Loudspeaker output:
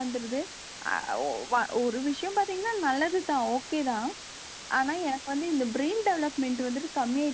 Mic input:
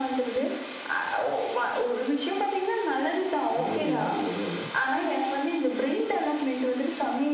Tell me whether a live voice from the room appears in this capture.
Yes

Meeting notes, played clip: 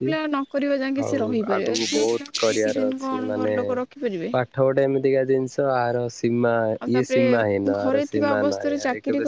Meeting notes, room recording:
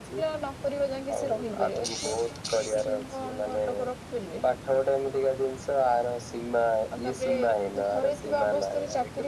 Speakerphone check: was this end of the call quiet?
Yes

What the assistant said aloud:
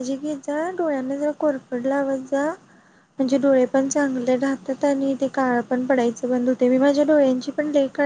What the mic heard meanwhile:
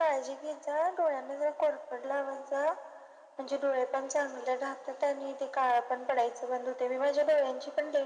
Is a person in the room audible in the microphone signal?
No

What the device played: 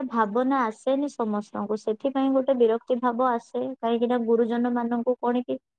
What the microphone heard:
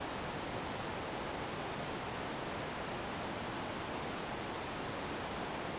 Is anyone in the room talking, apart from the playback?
No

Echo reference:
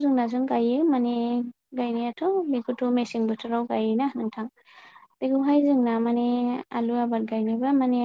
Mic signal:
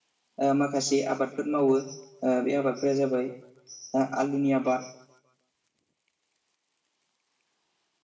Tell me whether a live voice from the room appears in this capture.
Yes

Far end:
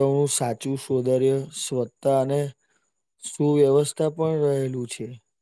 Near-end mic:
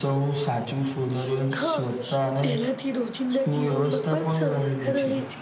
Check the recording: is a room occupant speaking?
Yes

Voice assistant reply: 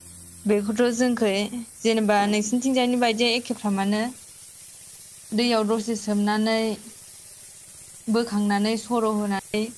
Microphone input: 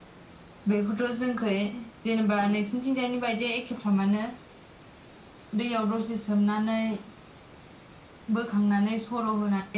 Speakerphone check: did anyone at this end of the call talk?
No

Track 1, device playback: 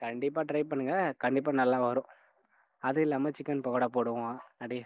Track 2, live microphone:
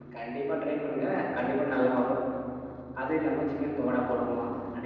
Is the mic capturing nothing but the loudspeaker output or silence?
Yes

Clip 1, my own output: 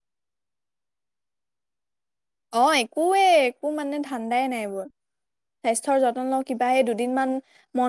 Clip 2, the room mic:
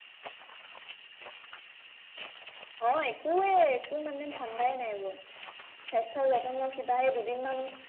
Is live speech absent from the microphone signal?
Yes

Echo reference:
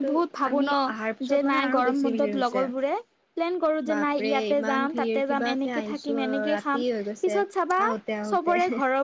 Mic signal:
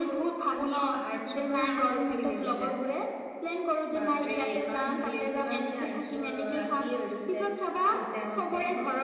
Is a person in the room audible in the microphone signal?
No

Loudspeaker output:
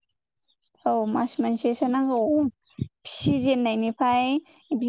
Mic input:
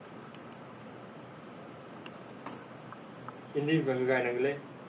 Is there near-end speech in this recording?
Yes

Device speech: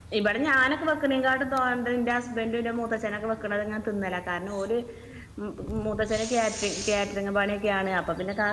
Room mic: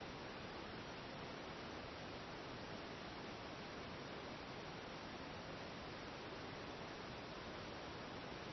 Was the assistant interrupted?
No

